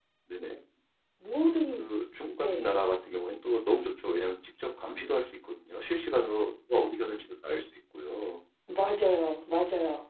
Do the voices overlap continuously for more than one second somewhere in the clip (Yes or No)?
No